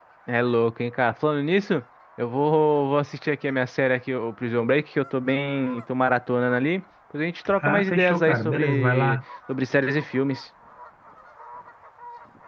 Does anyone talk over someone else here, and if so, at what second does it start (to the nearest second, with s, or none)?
7 s